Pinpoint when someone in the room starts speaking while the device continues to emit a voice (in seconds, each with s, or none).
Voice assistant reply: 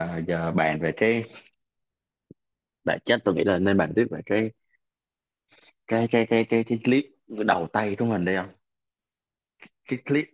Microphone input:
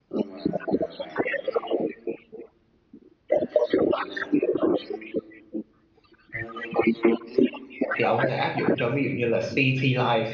7.9 s